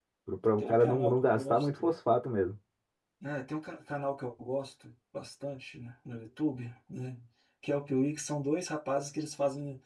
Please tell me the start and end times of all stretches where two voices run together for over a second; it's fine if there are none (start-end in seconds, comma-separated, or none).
0.6-1.8